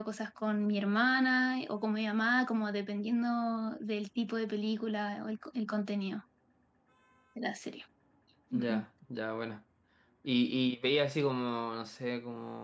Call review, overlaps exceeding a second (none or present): none